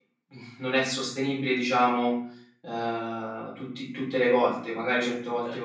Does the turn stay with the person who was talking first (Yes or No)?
Yes